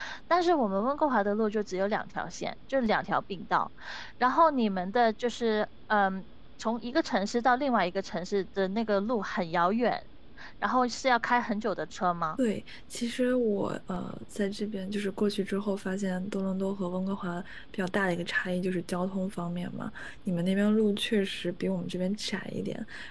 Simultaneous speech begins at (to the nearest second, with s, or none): none